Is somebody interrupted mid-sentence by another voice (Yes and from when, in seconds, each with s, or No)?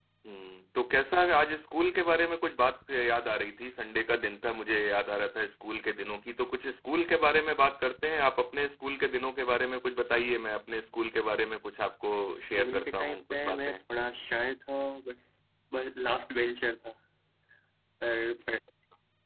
Yes, from 12.3 s